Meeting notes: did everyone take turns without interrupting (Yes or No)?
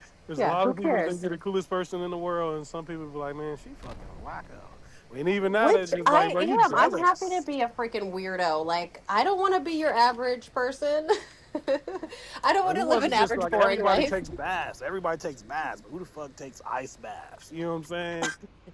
No